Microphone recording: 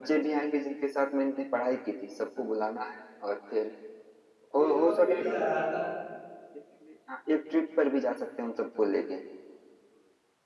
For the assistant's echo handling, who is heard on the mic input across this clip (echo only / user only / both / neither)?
both